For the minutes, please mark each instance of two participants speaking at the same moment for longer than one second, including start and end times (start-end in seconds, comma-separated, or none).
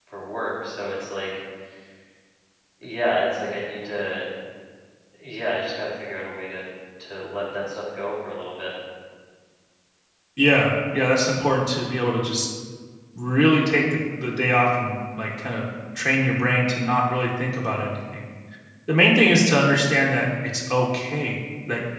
none